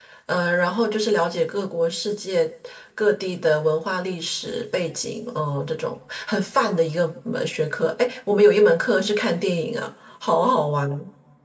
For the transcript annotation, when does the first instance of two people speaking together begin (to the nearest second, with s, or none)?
none